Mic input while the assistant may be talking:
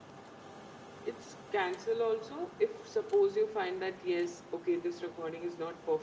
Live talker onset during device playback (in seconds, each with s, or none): 1.0 s